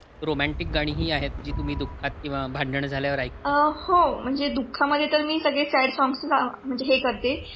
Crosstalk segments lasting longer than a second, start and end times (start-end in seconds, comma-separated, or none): none